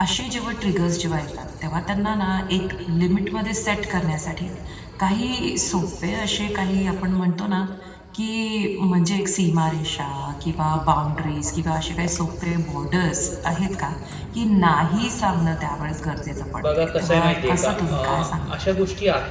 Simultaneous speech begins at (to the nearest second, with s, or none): 17 s